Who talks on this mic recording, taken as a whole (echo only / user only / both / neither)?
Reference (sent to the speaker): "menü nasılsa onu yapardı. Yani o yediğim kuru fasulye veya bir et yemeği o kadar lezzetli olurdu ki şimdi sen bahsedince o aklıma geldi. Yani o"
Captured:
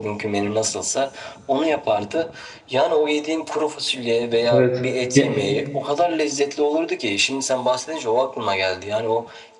both